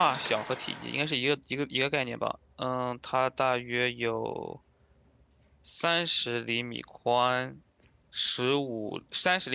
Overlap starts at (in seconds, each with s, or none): none